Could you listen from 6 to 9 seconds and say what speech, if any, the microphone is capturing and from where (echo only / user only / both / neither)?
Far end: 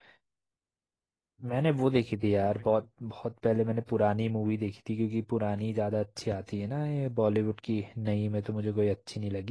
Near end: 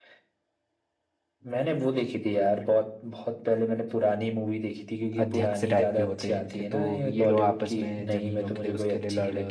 both